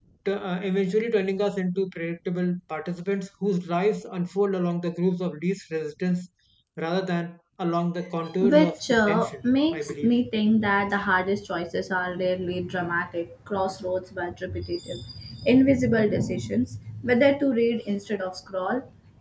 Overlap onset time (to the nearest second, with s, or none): 8 s